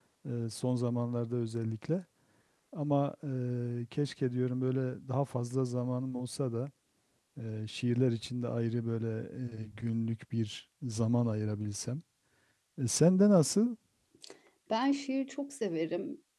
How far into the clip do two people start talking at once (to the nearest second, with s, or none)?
none